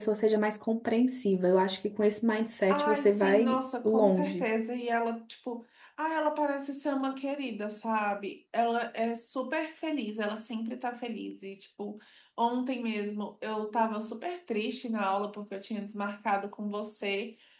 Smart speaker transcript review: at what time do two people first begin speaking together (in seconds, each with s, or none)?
2.7 s